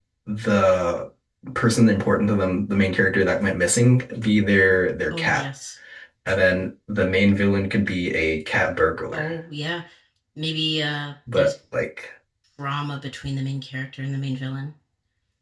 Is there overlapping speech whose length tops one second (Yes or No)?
No